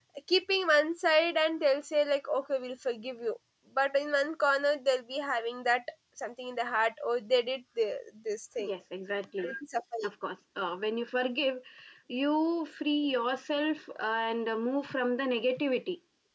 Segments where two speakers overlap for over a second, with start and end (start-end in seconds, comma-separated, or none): none